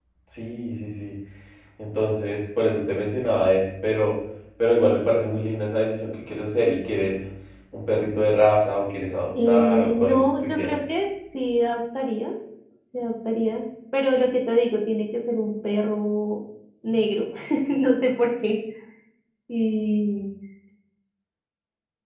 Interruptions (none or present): present